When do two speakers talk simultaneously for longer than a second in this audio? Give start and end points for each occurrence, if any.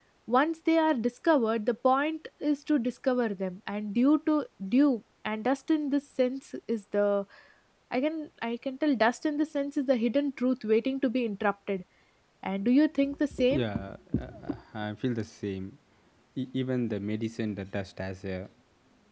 none

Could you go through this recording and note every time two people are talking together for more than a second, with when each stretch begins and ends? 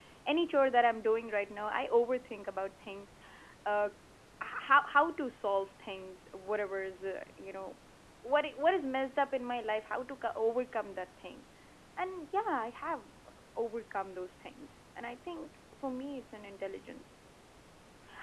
none

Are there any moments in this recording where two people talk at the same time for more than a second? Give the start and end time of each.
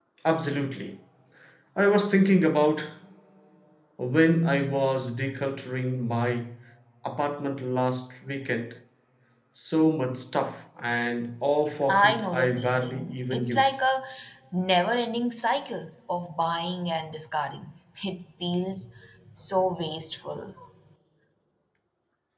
11.9-13.8

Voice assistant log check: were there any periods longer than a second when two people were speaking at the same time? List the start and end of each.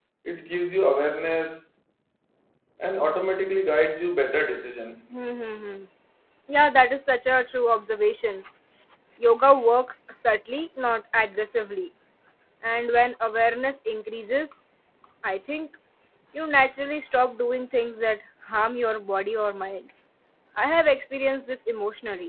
none

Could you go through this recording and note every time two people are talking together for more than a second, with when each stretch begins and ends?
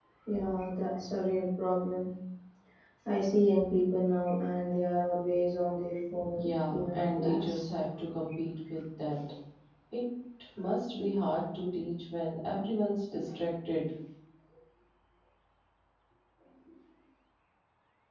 6.4-7.7

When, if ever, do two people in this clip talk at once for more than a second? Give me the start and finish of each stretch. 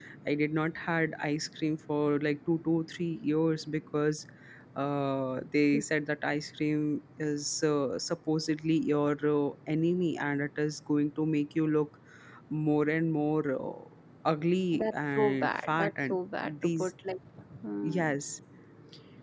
14.8-16.2

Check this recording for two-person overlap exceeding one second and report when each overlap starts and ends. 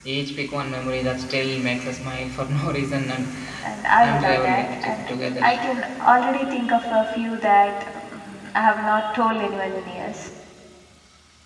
4.0-5.4

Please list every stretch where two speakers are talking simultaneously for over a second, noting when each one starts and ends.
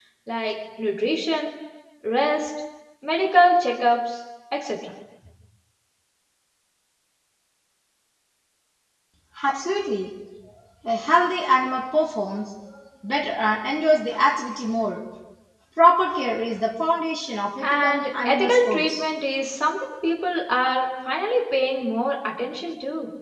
17.6-19.1

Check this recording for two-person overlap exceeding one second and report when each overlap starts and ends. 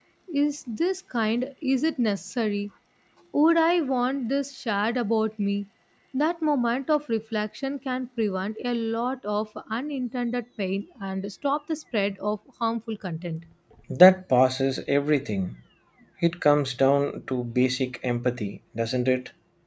none

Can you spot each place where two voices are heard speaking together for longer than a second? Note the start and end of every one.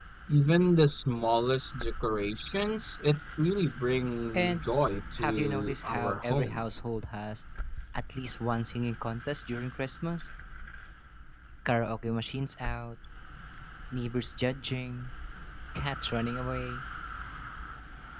5.2-6.7

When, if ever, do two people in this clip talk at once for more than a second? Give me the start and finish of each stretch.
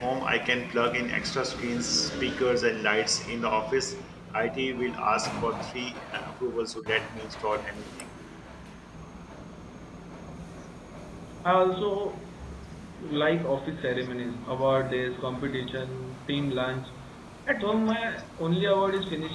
none

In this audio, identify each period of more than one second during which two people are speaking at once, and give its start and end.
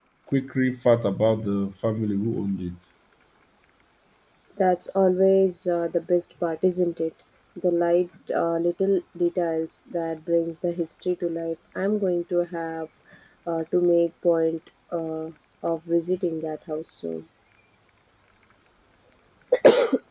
none

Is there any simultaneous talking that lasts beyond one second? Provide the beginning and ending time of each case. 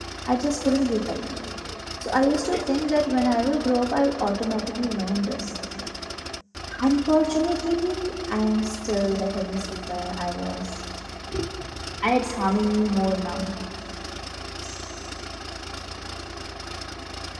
none

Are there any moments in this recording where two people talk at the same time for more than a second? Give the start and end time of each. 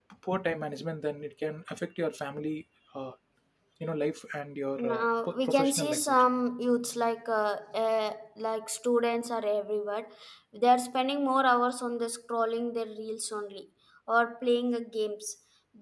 4.8-6.3

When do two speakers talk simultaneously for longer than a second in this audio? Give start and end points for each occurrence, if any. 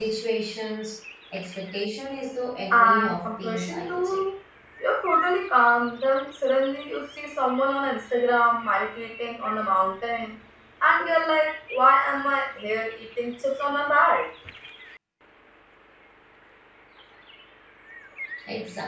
2.7-4.2

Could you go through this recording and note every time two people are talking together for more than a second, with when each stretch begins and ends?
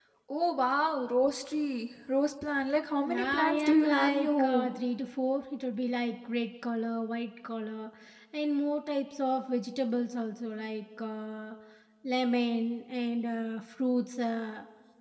3.0-4.7

